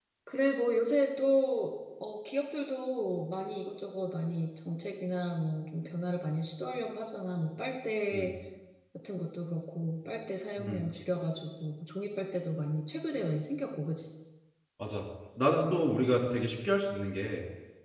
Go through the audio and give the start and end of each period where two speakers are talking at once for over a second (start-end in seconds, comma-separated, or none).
none